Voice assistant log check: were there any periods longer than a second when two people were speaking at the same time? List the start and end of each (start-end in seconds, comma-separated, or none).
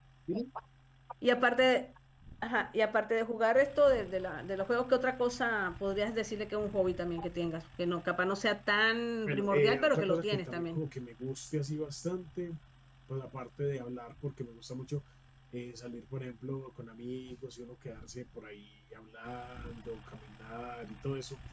9.3-10.8